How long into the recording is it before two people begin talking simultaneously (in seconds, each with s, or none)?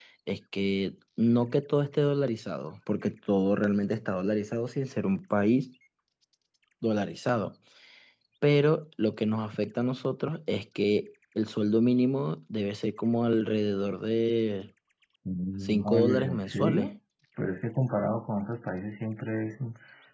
15.6 s